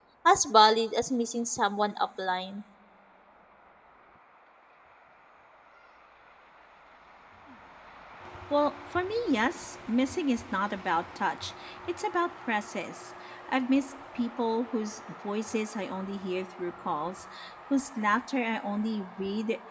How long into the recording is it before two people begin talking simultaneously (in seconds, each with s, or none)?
none